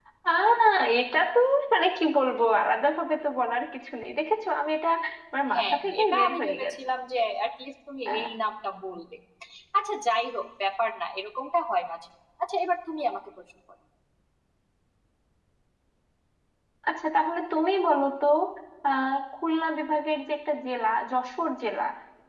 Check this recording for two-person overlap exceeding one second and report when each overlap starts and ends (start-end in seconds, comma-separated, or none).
5.5-6.7